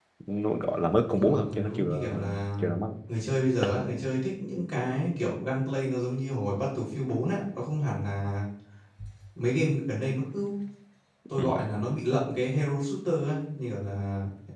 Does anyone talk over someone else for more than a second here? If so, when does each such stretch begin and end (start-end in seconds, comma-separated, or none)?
1.3-2.7